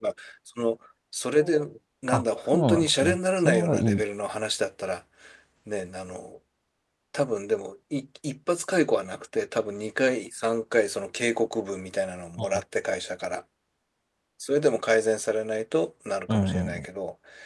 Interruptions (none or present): present